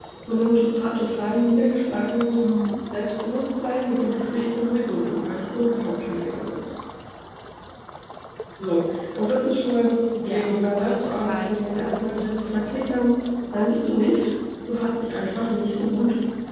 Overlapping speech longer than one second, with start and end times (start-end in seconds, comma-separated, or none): 10.2-12.0